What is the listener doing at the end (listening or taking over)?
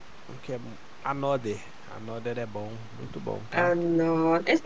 taking over